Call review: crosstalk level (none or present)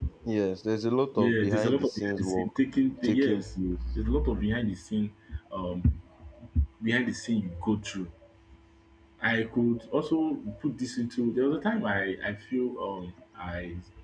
present